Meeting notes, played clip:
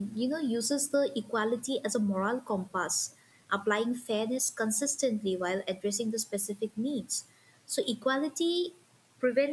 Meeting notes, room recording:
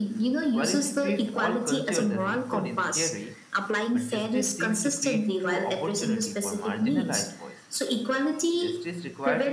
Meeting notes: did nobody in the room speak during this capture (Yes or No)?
No